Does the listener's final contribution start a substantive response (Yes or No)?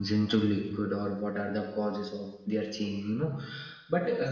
No